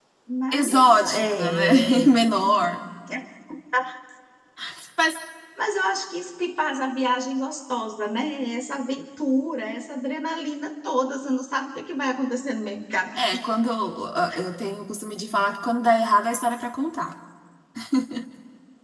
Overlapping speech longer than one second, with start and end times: 0.5-2.1

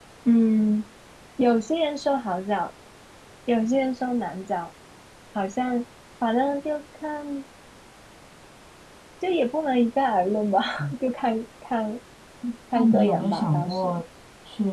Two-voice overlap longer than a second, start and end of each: 12.8-14.0

